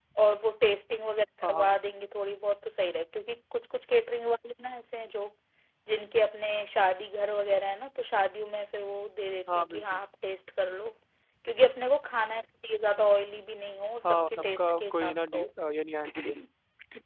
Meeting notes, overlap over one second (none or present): present